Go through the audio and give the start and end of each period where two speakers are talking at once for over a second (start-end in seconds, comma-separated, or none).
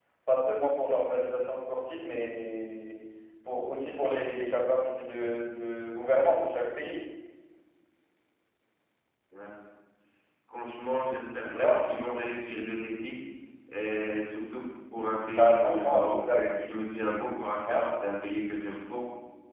15.4-16.6